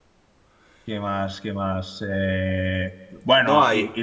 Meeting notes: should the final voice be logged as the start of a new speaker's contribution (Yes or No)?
No